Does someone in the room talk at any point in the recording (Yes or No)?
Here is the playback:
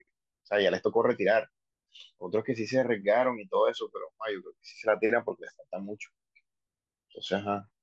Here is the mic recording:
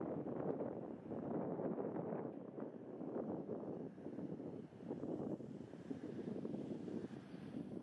No